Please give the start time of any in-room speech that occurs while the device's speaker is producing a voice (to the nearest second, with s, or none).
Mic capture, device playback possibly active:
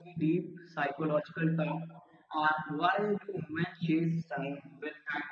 none